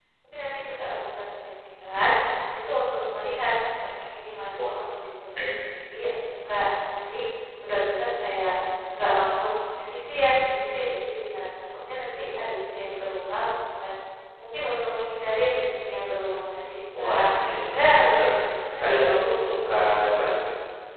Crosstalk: present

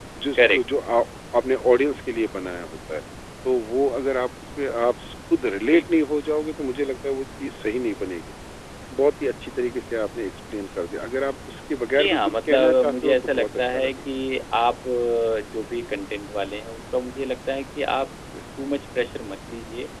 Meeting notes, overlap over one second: present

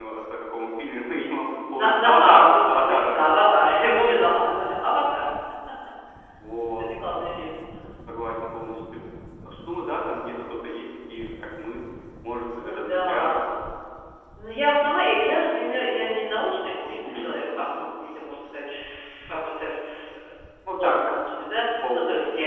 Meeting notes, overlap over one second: present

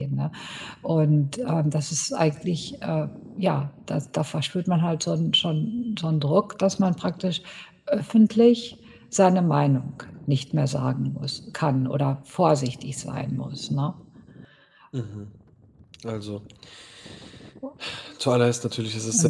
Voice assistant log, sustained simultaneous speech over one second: none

